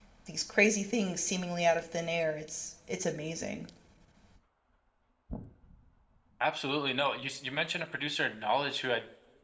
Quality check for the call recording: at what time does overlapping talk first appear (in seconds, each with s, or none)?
none